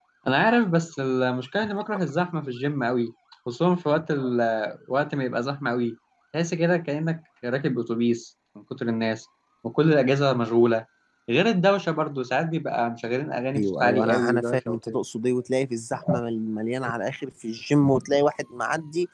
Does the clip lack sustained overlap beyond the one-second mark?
No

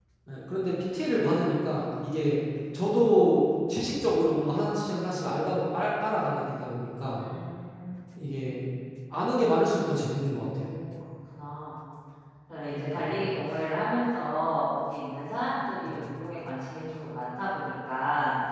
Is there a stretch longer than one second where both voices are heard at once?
No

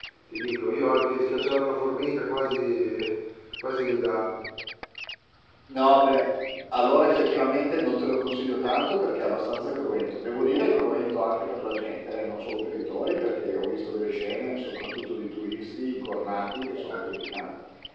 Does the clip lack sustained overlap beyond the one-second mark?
Yes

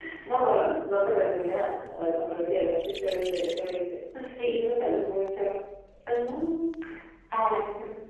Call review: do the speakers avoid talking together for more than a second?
Yes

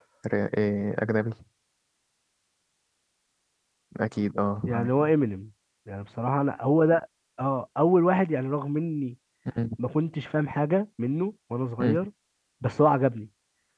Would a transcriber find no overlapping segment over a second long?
Yes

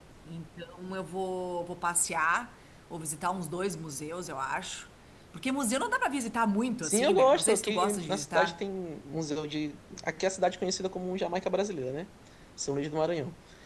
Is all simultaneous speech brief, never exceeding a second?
No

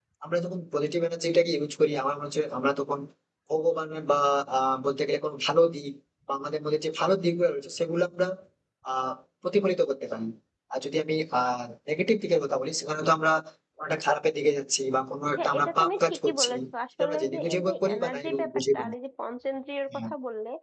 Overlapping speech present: Yes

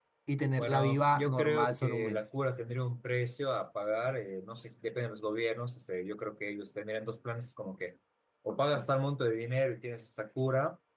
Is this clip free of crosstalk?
No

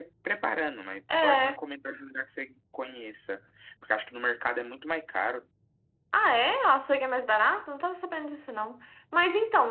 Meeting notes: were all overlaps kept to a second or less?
Yes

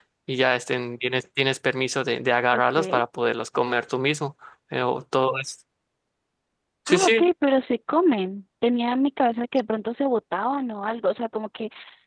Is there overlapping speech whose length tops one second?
No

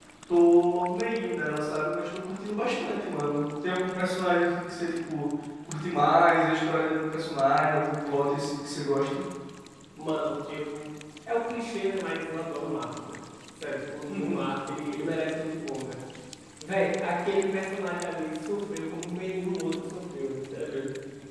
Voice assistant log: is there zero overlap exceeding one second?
Yes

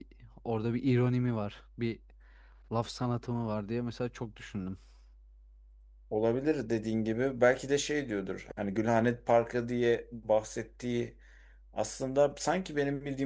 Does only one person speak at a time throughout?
Yes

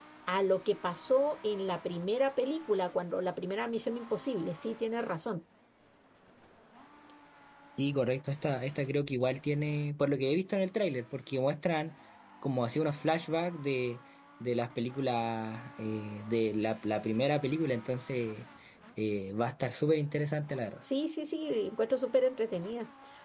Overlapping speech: No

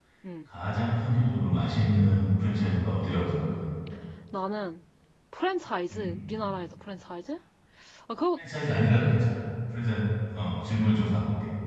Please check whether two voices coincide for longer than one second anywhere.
No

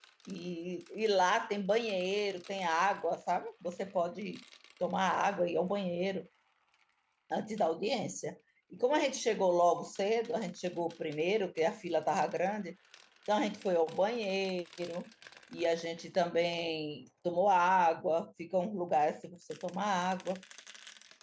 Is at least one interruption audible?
No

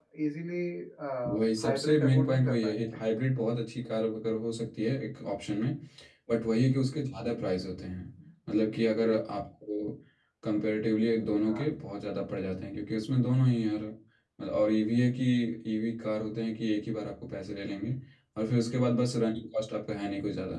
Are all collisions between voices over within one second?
No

